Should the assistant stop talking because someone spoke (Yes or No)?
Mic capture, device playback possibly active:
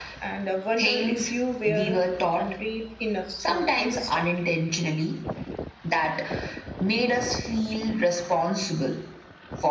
No